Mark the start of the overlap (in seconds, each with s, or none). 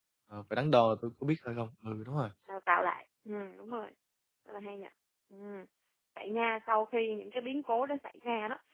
none